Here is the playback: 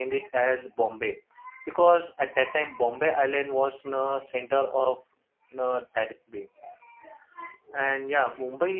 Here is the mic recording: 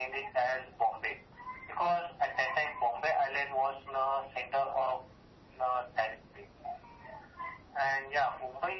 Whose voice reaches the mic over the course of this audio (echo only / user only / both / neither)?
echo only